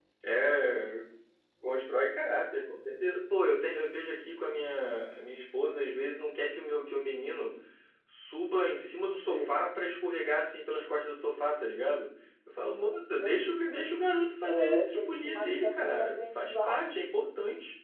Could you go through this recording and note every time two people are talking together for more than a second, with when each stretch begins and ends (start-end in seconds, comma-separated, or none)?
14.4-17.0